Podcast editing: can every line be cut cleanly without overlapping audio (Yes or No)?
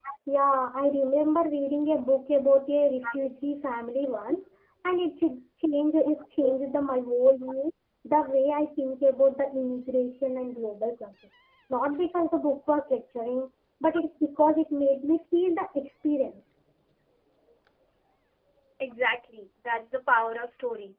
Yes